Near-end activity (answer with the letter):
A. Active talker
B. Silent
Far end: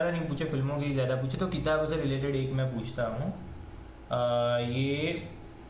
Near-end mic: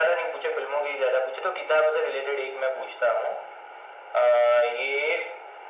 B